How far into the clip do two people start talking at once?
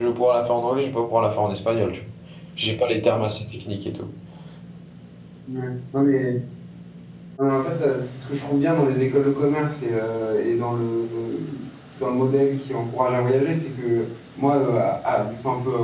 none

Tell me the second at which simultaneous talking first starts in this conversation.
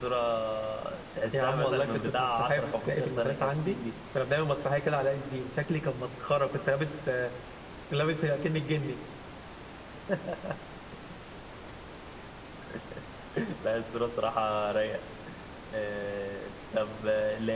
1 s

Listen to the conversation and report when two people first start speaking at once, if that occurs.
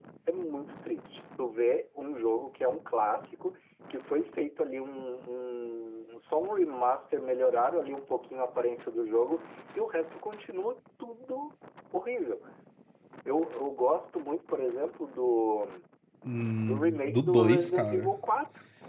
17 s

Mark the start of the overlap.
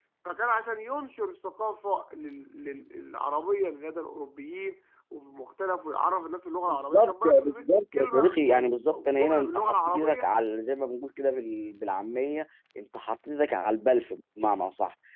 7 s

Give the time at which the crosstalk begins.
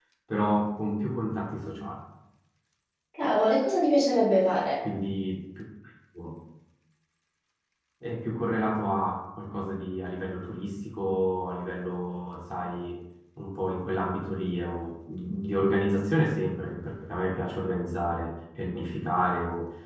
none

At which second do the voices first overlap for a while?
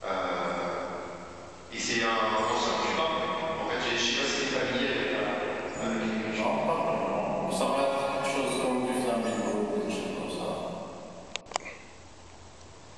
6 s

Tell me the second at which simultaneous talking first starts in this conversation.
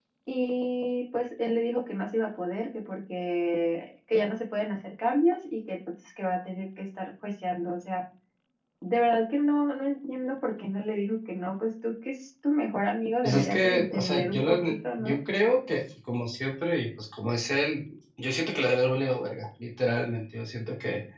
13 s

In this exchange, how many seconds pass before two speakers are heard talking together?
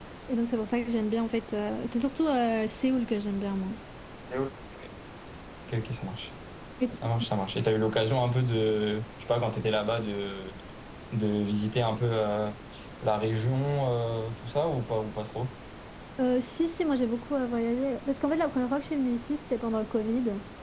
none

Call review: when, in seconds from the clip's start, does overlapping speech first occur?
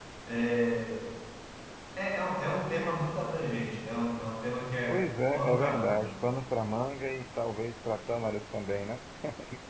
5 s

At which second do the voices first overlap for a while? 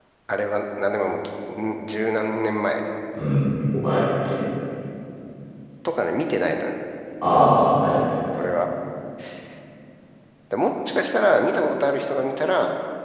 none

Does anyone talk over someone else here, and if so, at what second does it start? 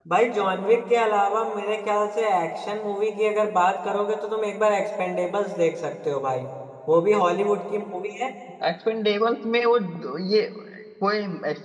none

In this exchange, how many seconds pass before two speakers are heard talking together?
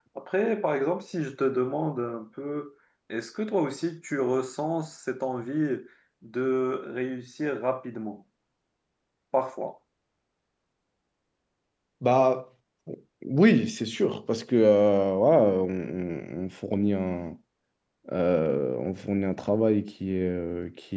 none

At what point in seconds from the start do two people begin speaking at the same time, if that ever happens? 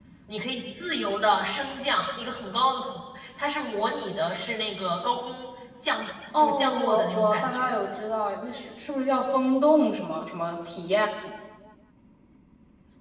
6 s

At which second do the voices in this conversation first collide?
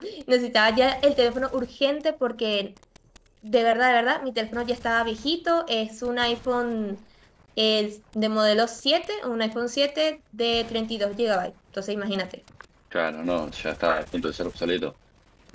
none

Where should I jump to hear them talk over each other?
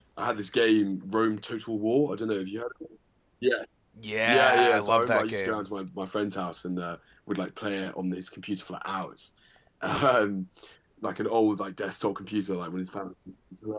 4 s

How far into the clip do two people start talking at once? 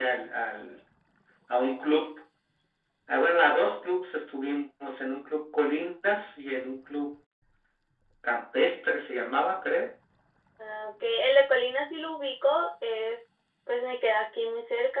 none

